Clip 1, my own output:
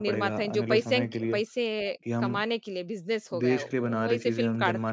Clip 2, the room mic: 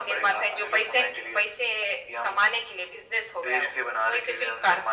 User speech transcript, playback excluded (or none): none